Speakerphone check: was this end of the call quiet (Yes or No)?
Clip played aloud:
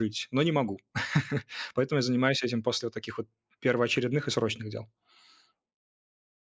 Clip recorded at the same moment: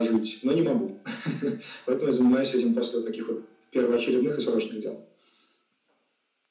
Yes